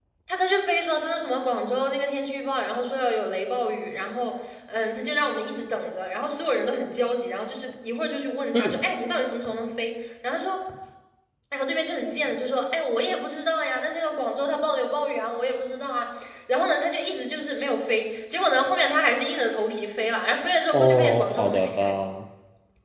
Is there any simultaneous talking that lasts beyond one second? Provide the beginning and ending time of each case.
20.7-21.9

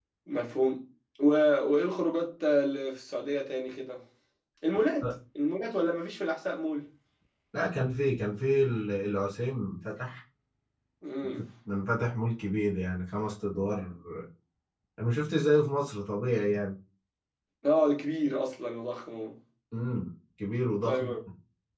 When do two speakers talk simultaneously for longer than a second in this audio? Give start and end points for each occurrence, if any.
none

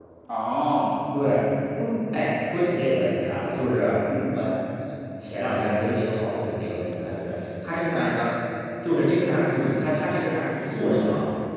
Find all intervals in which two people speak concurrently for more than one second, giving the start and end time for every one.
none

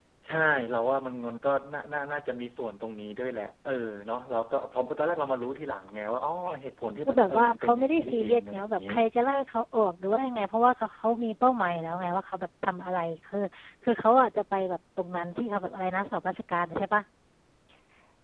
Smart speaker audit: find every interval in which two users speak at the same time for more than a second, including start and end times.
7.1-8.8

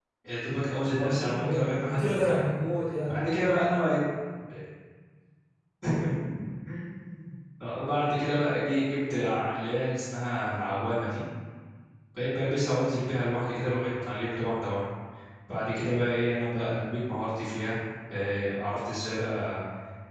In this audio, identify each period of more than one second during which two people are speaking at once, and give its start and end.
0.9-2.4

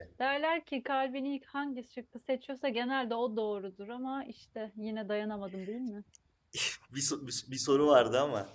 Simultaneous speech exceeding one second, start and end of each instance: none

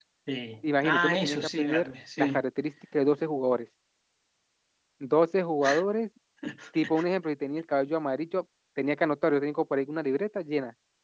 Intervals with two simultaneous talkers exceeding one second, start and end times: 0.6-2.4

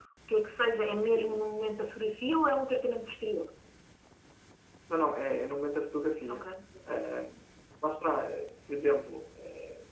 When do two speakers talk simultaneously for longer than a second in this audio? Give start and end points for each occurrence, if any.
none

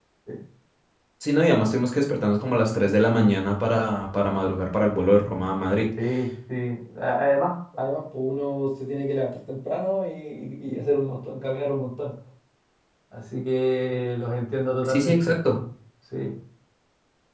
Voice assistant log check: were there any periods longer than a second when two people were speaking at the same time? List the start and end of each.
none

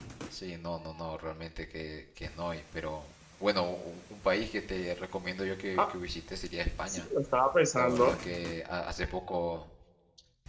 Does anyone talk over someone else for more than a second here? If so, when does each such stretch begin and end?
none

